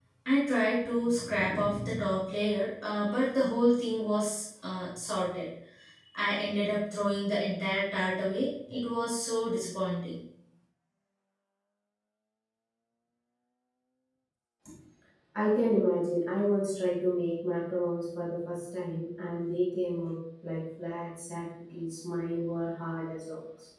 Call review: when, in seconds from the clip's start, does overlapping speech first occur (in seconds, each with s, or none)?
none